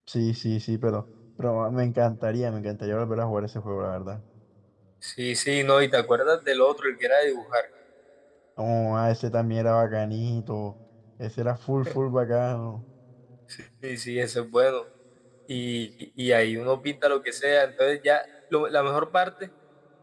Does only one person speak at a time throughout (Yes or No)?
Yes